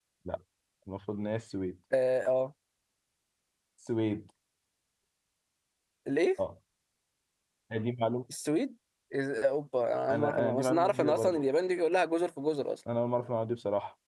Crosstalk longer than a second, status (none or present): present